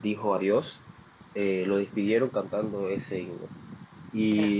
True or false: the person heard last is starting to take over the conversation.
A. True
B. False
B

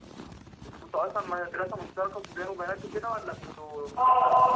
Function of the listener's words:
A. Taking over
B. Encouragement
A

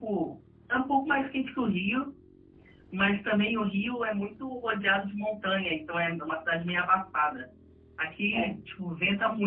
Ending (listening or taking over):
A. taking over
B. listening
B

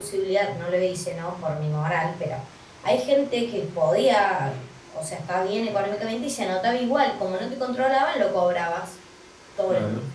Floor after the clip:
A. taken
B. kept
B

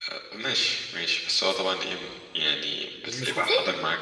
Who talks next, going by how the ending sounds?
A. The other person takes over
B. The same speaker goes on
B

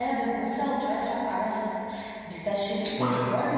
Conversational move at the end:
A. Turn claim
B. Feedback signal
A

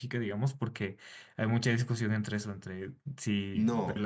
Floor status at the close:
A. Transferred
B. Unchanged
A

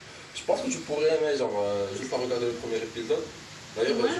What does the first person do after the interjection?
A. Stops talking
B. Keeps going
B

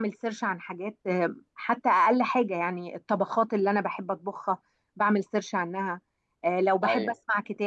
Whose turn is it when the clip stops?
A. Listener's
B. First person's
B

